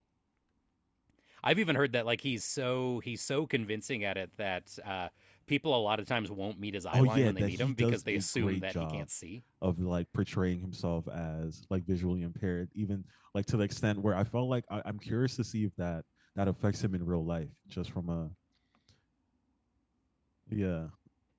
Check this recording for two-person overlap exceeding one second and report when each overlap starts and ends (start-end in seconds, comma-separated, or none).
6.9-9.1